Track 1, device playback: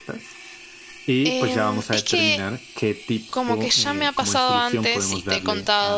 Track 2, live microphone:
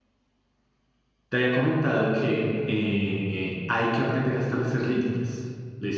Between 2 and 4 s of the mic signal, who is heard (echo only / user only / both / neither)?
user only